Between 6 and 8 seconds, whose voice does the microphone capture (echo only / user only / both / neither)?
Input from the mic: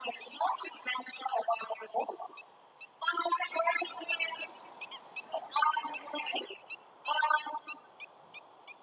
echo only